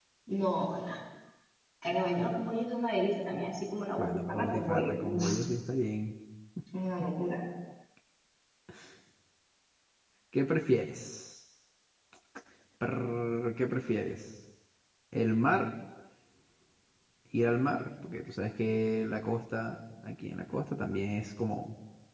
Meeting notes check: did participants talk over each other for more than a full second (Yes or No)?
Yes